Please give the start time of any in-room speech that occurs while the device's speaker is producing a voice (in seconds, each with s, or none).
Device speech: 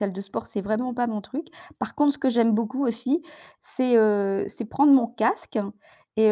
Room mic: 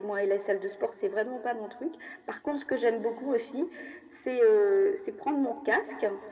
none